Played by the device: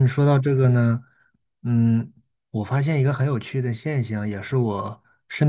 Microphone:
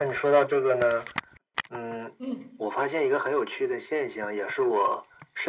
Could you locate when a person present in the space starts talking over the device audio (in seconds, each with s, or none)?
2.2 s